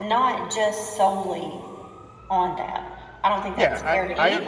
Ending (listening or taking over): taking over